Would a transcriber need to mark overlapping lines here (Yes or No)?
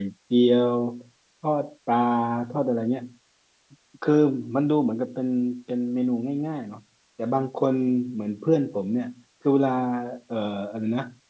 No